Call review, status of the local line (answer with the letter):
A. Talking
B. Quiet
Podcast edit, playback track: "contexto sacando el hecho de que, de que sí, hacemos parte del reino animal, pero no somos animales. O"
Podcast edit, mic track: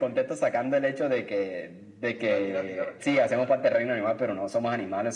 A